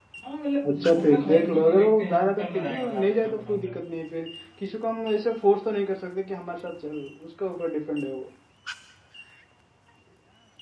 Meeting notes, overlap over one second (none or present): present